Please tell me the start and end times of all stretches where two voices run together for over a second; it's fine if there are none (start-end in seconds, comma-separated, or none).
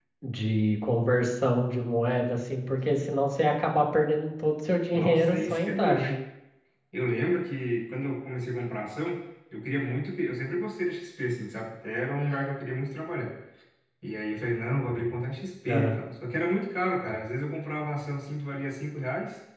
4.9-6.1